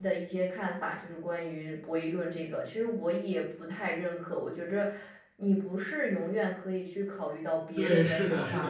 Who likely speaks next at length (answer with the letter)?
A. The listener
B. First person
A